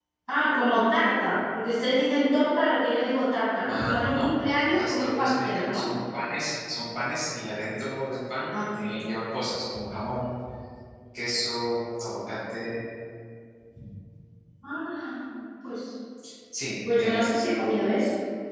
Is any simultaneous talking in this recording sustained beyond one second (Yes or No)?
Yes